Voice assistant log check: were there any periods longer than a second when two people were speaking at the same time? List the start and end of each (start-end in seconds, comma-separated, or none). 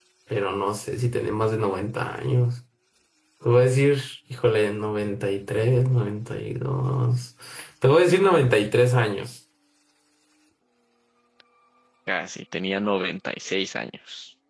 none